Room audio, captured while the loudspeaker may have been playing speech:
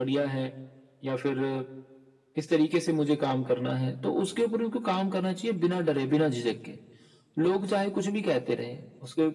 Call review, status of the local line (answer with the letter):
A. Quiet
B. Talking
A